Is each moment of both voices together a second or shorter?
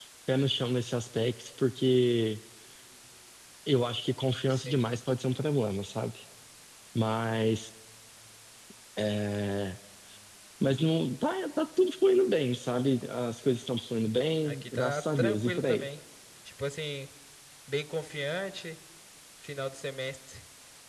No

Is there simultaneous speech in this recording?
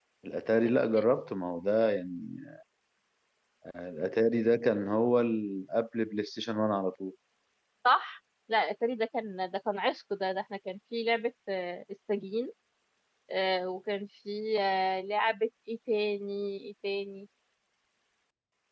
No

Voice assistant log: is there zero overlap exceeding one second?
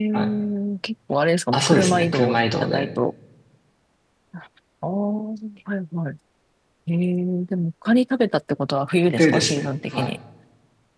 No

